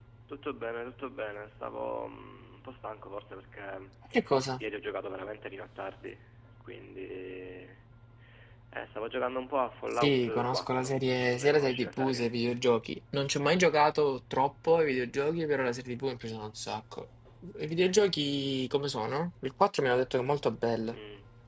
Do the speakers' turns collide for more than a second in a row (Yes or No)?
Yes